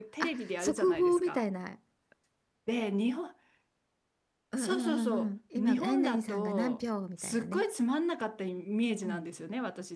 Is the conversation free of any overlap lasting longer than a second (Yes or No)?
No